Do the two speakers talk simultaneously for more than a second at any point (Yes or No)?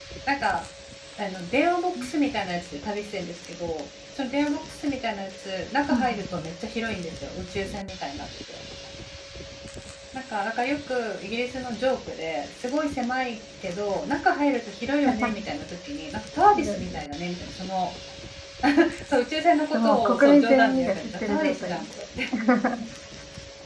Yes